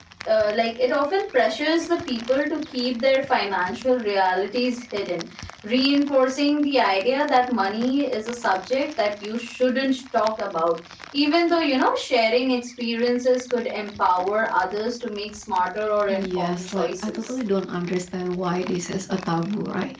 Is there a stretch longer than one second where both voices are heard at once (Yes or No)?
Yes